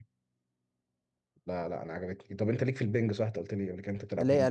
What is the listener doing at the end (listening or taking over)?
taking over